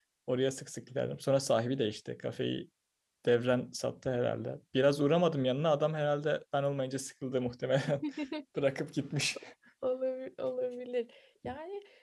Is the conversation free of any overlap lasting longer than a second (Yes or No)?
Yes